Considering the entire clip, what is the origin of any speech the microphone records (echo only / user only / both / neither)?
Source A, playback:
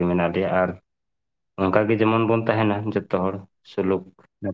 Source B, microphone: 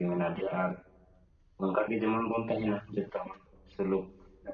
echo only